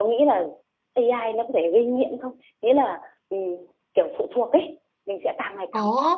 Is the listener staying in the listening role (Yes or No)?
No